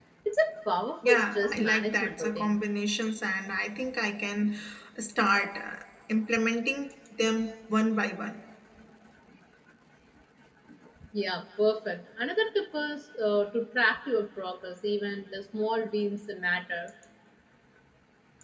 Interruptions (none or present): present